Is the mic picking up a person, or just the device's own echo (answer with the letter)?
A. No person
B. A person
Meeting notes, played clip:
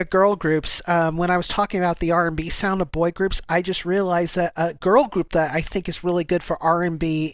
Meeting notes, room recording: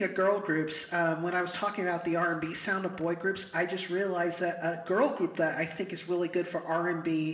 A